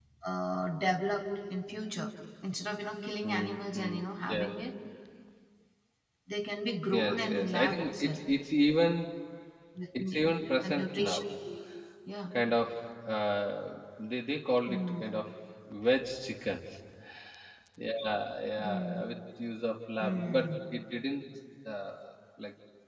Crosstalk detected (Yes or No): Yes